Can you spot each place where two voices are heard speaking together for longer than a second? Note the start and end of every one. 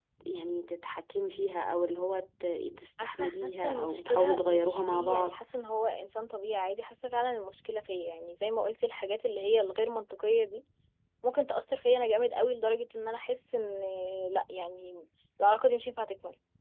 3.0-5.4

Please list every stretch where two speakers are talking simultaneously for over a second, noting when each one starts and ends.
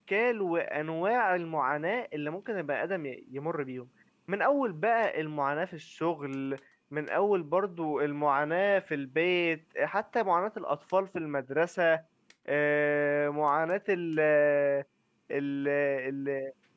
none

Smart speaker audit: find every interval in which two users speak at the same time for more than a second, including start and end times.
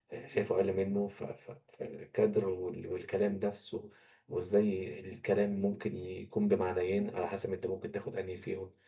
none

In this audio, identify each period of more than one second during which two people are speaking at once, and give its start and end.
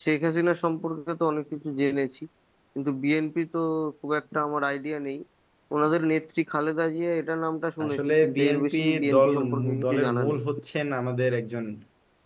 7.8-10.4

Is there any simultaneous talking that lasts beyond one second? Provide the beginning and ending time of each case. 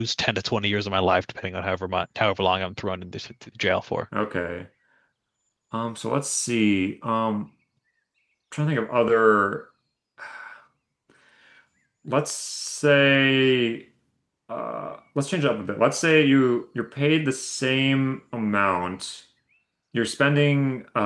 none

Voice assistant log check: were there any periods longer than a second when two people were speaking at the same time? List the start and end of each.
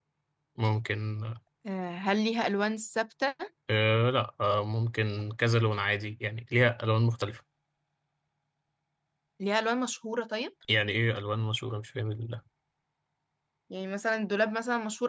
none

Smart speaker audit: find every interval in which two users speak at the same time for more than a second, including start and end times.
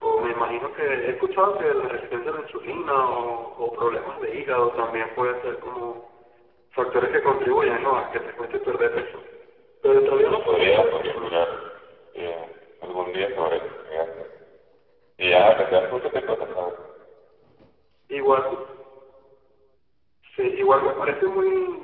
10.1-11.4

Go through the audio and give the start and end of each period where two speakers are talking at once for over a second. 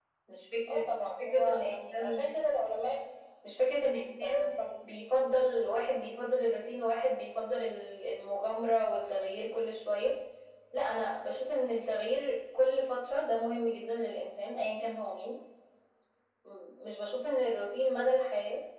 0.7-2.1

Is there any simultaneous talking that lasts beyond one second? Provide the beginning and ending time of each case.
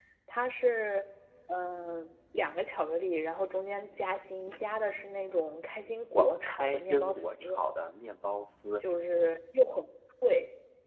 6.1-7.5

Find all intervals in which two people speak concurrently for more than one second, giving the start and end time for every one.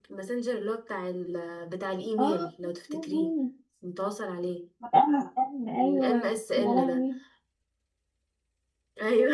5.8-7.0

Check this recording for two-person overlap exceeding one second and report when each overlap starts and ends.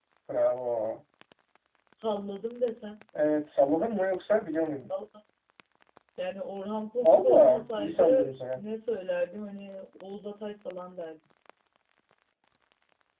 7.0-8.6

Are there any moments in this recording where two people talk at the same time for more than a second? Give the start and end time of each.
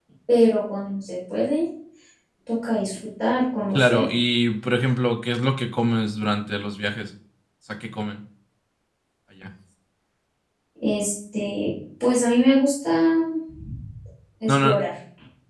none

